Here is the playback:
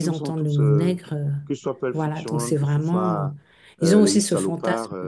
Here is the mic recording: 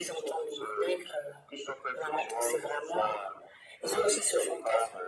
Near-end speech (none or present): none